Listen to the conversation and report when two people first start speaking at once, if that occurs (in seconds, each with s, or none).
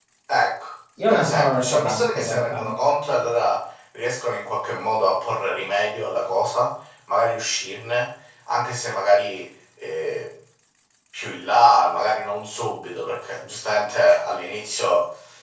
1.1 s